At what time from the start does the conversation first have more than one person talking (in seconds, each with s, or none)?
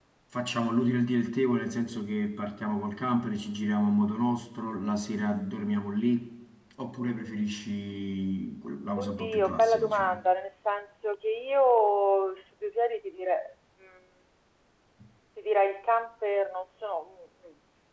9.0 s